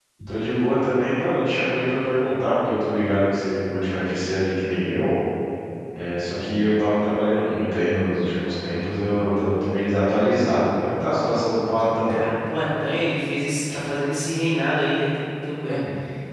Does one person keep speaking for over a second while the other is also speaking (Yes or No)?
No